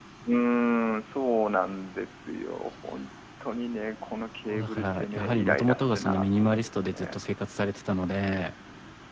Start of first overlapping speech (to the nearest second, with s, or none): 4 s